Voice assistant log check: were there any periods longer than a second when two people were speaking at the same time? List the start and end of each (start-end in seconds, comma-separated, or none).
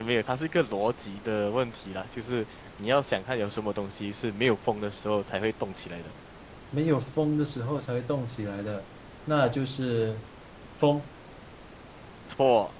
none